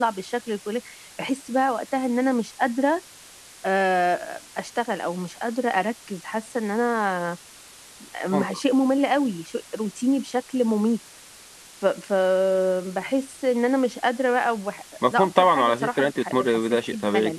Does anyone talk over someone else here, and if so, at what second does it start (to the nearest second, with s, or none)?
15 s